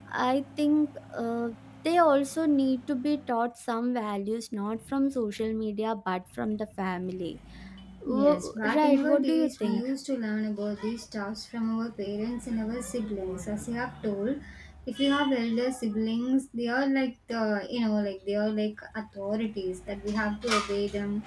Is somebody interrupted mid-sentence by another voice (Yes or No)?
Yes